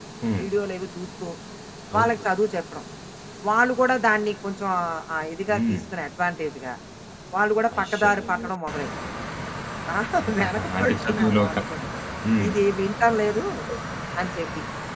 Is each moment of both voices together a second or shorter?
No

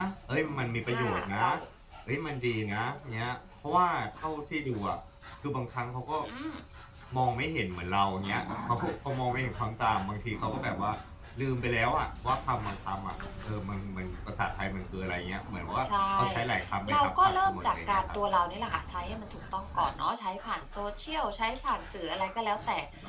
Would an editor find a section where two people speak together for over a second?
Yes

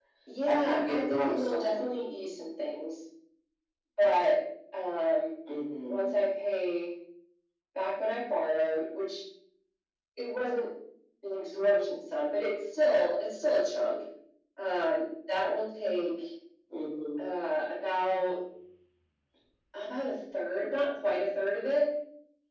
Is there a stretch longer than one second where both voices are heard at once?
Yes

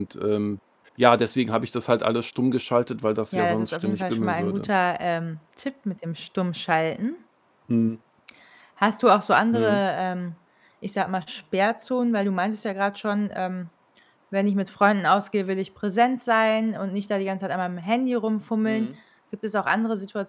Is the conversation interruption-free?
No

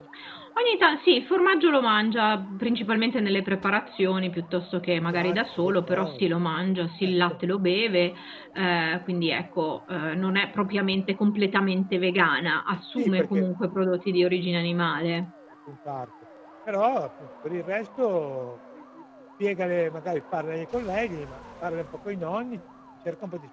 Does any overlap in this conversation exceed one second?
Yes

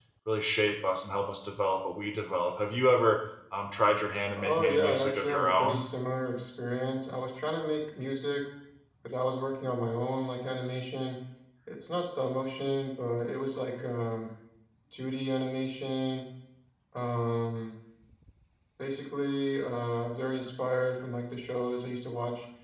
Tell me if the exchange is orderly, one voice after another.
No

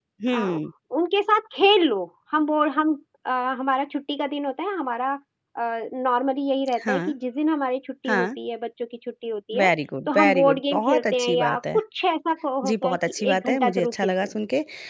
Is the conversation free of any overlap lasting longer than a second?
No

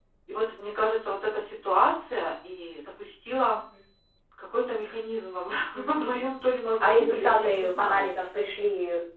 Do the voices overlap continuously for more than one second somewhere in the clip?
Yes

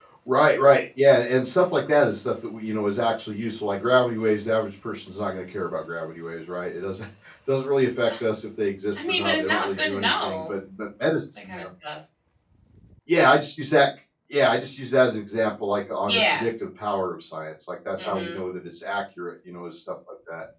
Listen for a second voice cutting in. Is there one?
Yes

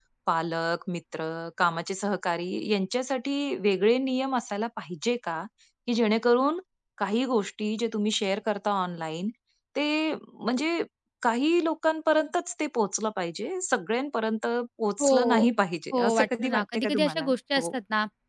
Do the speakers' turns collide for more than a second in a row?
Yes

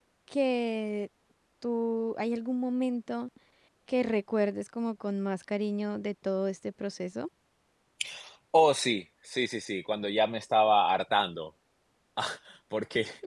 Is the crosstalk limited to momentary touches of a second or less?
Yes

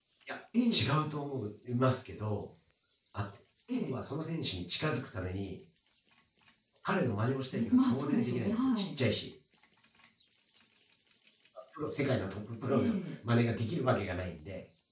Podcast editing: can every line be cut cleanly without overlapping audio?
No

